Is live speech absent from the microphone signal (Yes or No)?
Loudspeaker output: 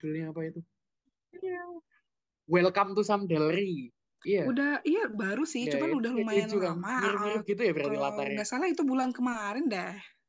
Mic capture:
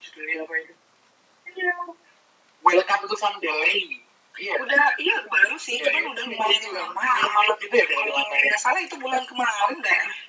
Yes